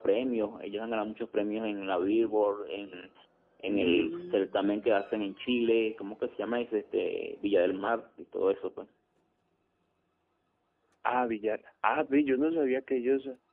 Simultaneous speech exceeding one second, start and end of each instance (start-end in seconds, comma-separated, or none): 3.7-5.0